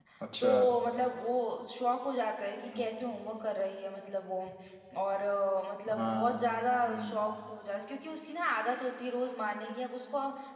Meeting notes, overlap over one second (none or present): none